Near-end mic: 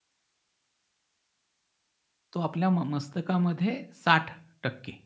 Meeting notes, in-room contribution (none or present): present